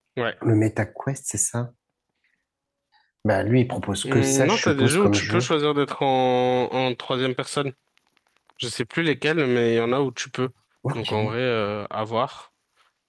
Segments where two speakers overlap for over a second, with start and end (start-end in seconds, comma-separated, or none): 4.0-5.5